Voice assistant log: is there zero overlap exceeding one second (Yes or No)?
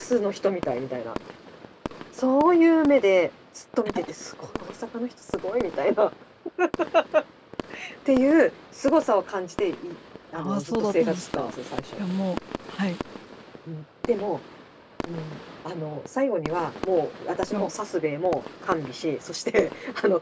No